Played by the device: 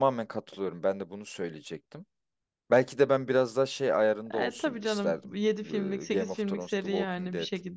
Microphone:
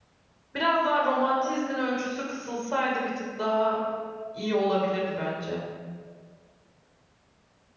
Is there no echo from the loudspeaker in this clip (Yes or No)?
Yes